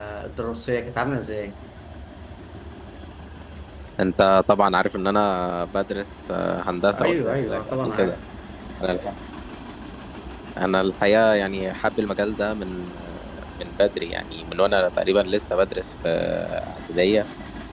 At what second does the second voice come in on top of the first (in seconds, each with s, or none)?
6.9 s